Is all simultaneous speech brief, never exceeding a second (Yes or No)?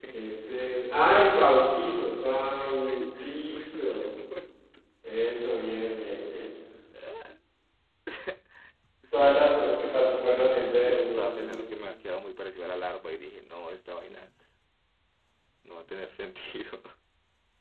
No